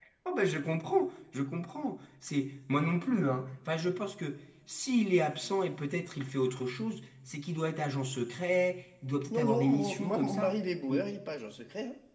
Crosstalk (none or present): present